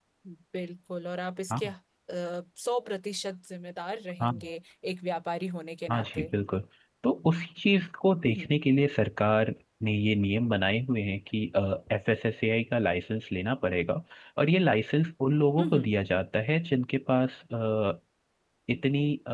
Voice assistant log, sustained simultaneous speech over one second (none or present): none